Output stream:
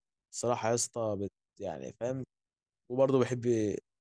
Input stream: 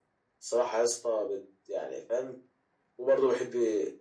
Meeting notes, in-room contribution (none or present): none